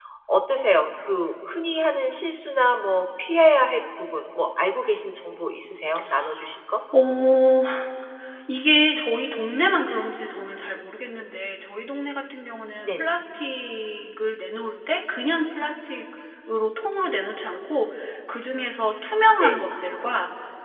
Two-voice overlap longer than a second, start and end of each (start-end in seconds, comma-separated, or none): none